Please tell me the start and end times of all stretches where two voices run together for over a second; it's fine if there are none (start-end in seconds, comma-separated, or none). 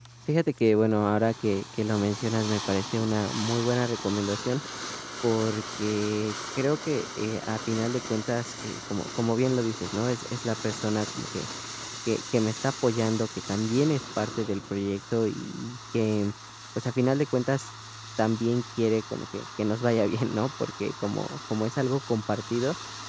none